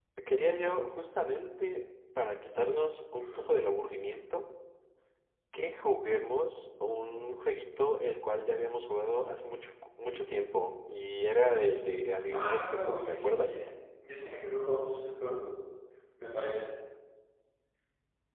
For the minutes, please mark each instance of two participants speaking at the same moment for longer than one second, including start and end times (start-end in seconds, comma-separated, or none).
12.3-13.6